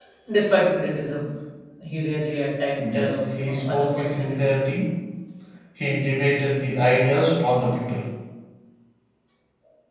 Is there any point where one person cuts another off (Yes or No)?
Yes